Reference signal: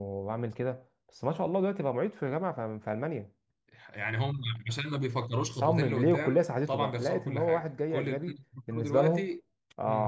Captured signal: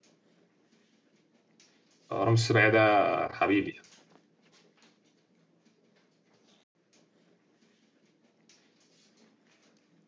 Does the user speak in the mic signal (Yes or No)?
Yes